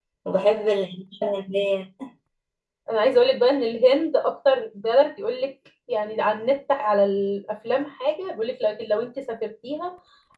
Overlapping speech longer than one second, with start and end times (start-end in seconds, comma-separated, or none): none